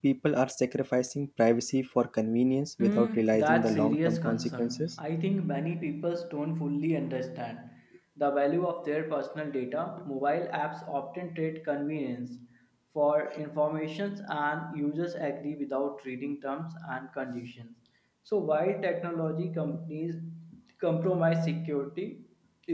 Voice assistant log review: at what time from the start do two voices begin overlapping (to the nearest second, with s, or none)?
3 s